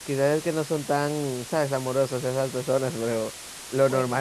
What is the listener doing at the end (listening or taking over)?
listening